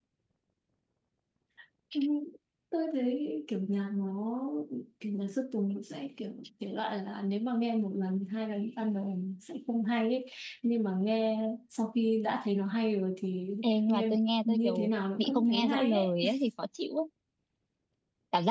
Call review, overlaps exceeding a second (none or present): present